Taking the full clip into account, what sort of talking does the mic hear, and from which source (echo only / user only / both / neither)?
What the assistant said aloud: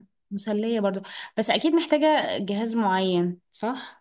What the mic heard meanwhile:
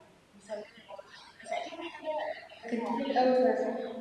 both